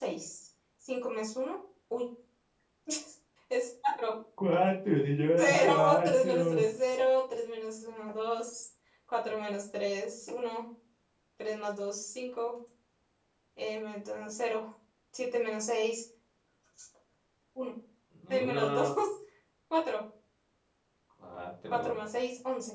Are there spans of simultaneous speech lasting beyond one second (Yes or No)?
Yes